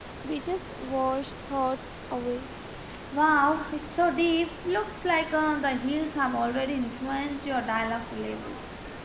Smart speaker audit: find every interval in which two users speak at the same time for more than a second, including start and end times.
none

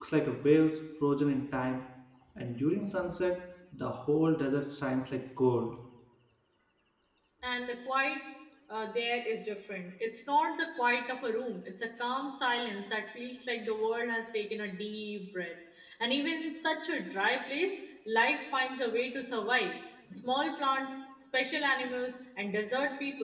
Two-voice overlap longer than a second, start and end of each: none

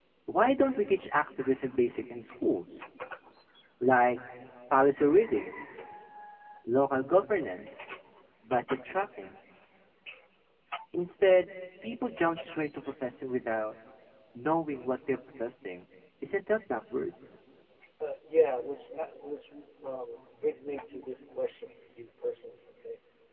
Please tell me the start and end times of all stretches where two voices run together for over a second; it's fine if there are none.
none

